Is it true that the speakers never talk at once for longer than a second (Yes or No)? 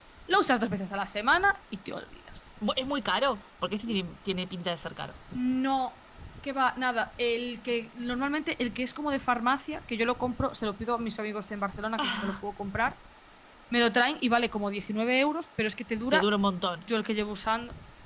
Yes